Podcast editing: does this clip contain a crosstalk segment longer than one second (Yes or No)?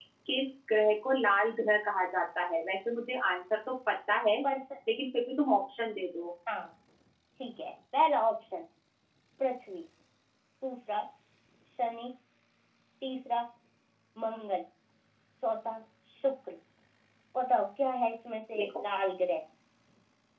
No